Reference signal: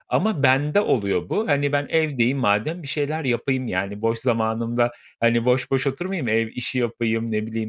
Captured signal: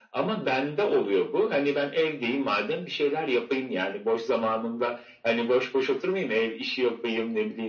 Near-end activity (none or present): none